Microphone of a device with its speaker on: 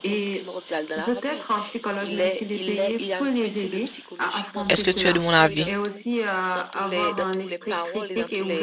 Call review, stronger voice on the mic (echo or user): user